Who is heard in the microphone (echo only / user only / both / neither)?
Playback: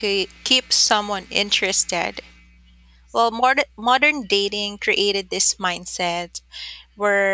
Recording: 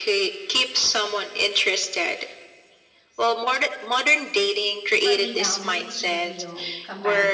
both